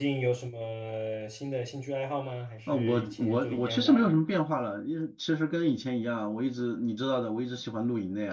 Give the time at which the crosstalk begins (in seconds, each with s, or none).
2.7 s